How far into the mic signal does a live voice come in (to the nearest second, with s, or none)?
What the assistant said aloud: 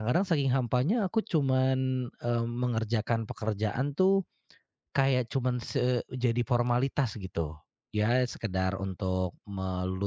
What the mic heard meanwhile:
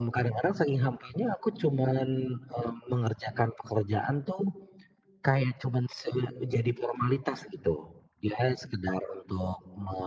none